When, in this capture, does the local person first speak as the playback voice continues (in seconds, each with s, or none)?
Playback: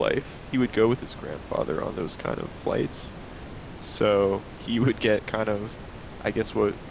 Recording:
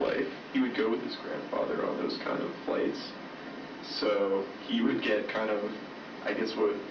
none